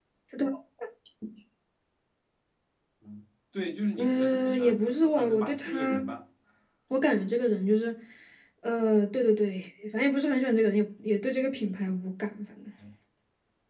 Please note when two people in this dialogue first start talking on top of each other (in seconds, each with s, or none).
4.0 s